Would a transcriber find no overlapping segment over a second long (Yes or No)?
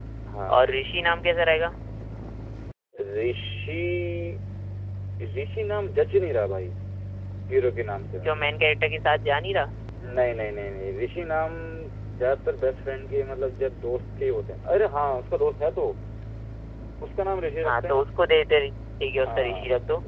Yes